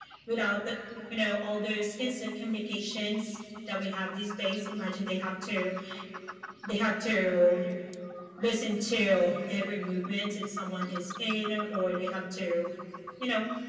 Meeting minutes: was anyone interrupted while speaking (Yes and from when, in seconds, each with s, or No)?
No